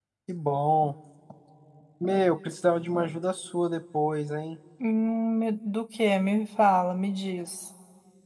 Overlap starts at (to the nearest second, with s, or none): none